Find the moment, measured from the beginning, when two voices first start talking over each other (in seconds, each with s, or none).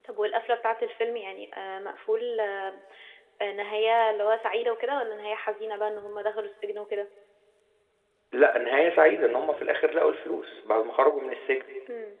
none